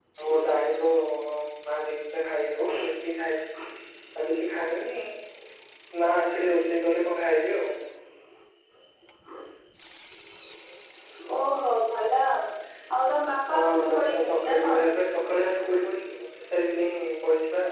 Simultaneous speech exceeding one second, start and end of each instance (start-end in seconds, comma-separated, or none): 13.5-14.9